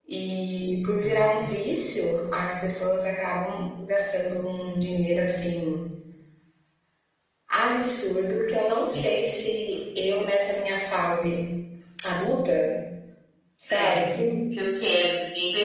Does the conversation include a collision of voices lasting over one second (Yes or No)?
No